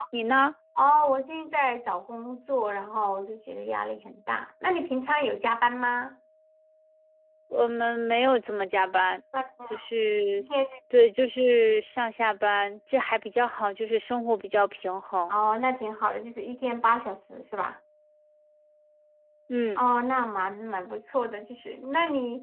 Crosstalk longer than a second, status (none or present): none